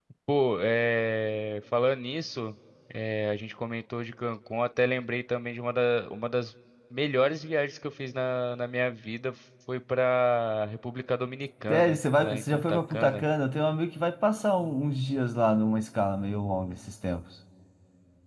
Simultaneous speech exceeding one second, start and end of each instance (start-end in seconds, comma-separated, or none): 11.7-13.2